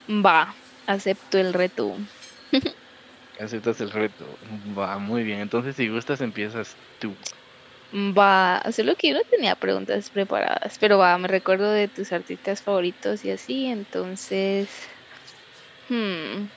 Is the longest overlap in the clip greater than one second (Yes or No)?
No